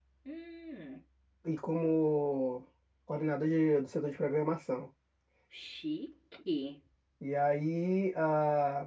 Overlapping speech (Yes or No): No